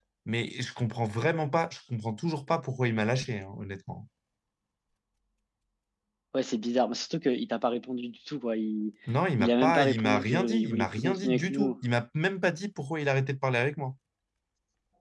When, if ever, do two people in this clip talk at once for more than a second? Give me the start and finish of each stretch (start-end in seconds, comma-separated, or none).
9.4-11.7